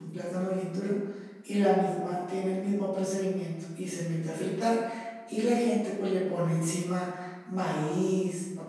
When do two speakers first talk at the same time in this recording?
none

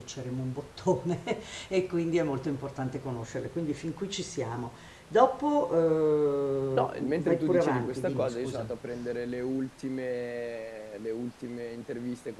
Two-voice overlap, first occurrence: 6.8 s

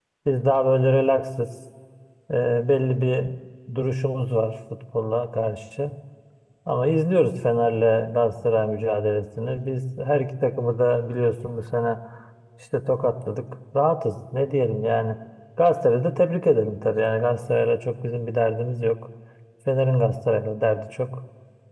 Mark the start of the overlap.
none

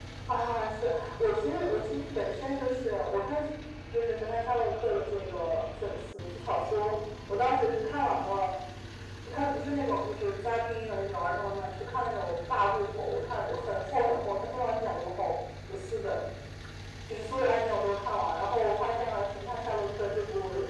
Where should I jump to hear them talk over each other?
none

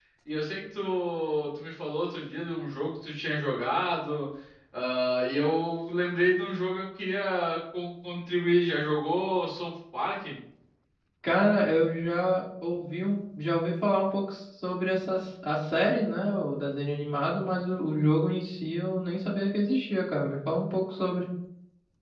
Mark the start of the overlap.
none

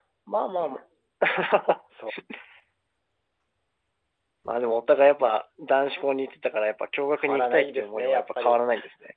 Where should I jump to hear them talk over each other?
7.2 s

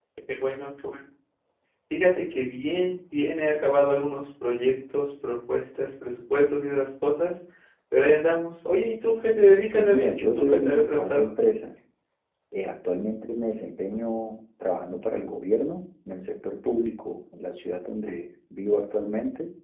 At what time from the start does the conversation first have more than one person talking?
9.7 s

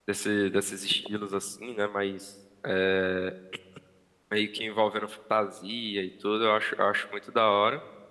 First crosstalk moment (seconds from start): none

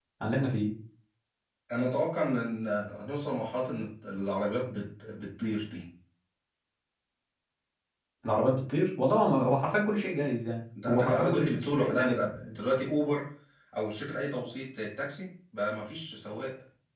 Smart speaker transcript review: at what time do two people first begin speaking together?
10.8 s

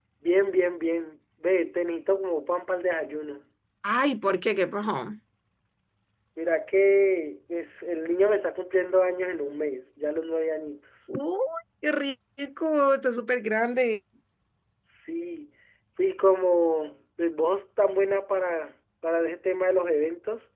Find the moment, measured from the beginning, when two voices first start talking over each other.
none

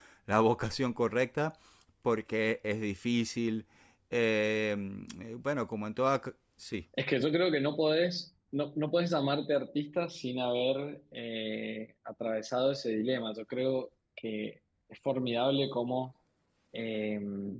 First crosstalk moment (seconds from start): none

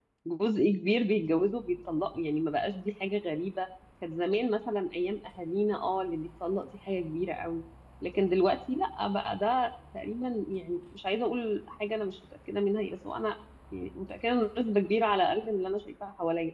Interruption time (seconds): none

